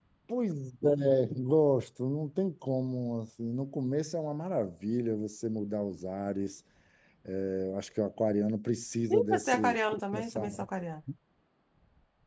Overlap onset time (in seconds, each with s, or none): 9.1 s